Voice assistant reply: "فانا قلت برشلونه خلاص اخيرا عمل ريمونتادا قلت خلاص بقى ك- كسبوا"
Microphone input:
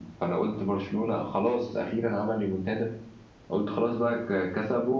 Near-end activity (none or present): none